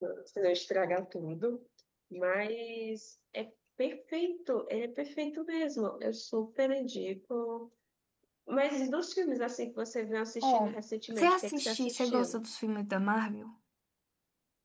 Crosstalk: present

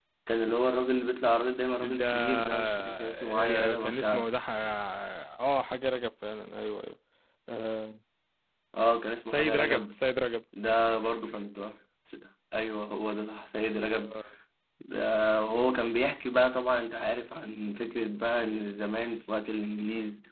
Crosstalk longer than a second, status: present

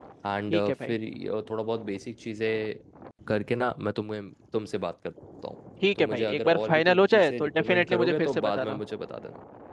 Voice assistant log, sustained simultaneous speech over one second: present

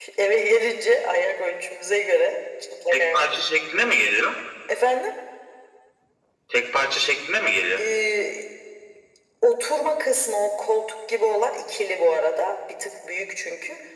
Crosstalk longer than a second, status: none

